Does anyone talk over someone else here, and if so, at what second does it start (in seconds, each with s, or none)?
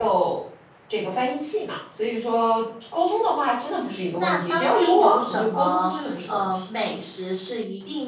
4.2 s